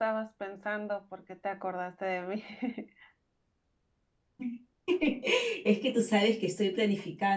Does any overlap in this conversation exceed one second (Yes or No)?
No